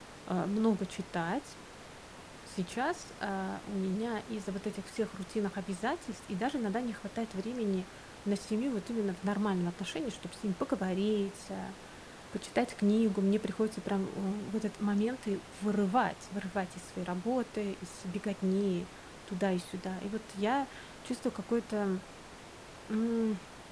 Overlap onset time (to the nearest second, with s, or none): none